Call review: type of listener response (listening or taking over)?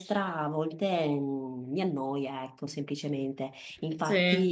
listening